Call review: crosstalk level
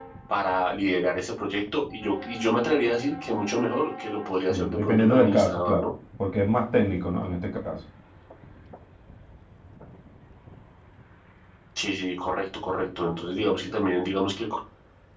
present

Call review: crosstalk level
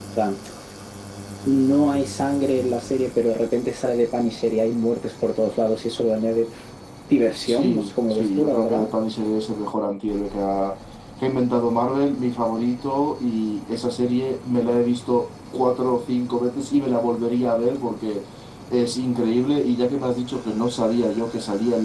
present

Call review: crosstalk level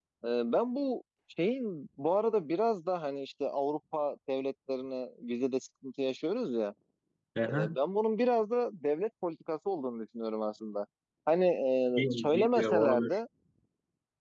present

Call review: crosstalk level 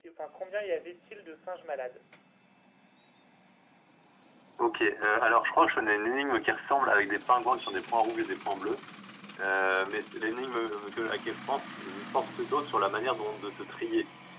none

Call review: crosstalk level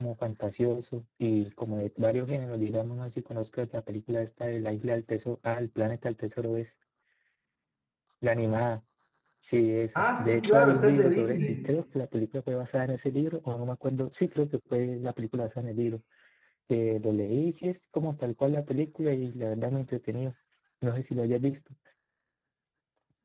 present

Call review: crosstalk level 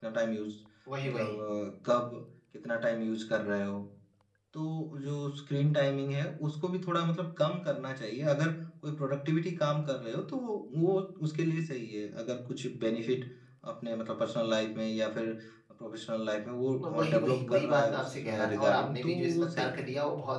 present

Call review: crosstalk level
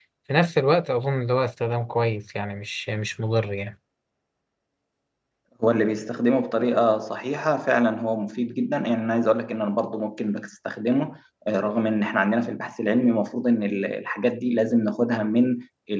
none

